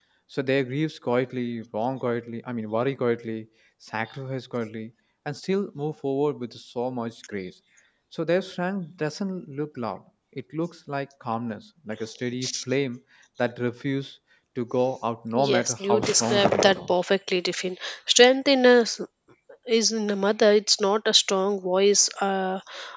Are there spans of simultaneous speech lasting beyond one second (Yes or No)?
Yes